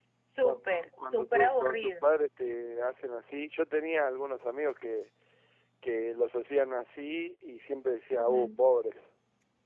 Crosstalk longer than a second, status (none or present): present